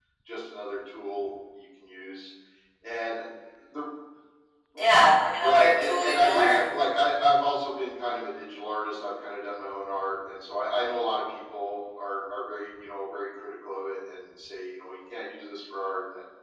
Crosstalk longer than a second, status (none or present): present